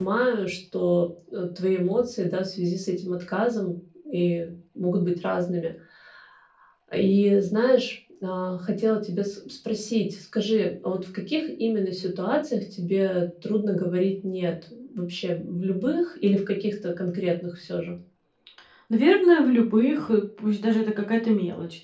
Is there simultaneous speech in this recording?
No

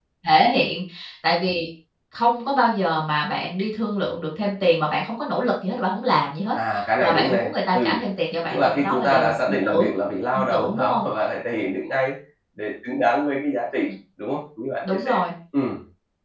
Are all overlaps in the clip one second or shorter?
No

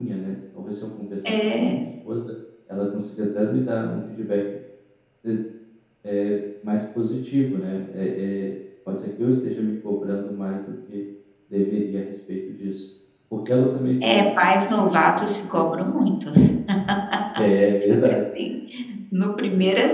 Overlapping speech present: Yes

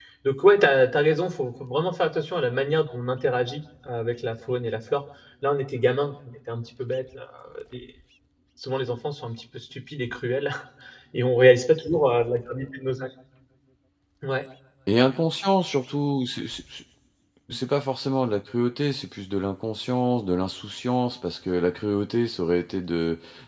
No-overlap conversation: Yes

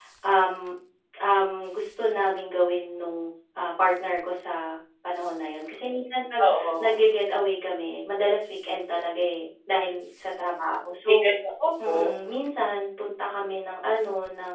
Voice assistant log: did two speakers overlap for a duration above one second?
No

